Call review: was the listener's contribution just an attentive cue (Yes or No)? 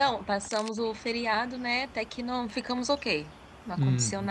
Yes